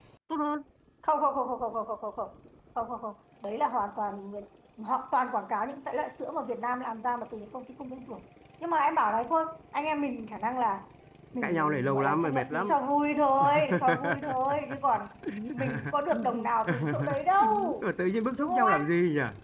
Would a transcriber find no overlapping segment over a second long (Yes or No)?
No